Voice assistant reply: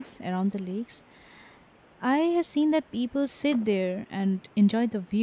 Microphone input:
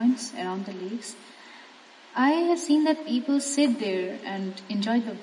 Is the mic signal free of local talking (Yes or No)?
Yes